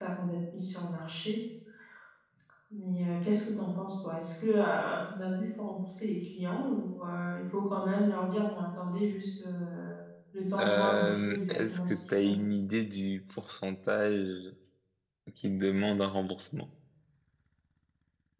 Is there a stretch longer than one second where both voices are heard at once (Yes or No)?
Yes